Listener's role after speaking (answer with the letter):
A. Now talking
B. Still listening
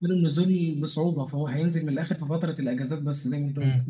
A